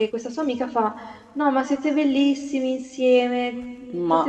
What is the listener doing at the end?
listening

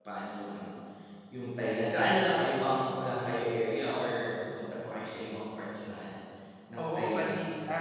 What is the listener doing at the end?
taking over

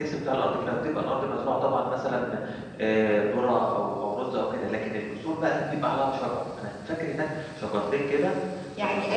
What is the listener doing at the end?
taking over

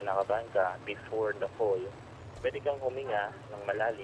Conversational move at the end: listening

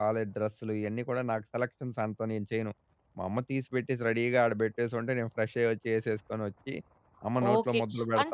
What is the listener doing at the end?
taking over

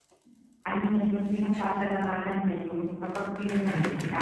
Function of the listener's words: listening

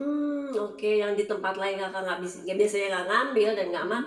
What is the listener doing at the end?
listening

